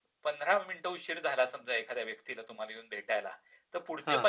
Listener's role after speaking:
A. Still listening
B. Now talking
A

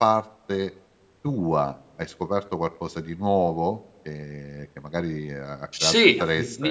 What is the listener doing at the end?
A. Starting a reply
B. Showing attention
A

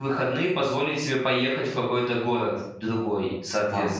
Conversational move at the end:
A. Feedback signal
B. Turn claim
B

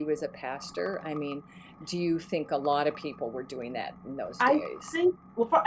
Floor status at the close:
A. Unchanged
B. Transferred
B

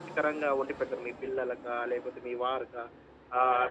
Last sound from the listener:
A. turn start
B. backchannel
B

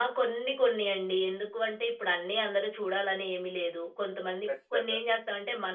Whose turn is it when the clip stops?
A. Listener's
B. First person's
B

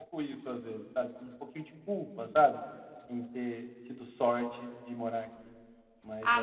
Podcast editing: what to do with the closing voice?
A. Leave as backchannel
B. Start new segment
B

